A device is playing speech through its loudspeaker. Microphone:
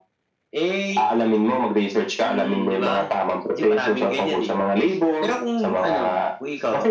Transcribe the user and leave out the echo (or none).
none